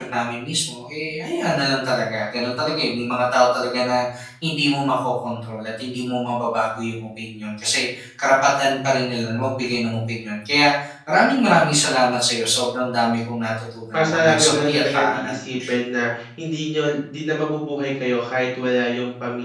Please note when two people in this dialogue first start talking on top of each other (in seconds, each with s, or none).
13.9 s